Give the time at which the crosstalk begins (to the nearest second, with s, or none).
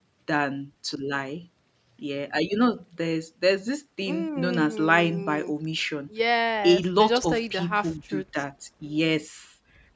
4 s